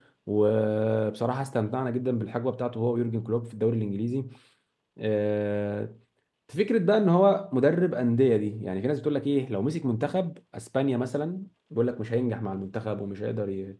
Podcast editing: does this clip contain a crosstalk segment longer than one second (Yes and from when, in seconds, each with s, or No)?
No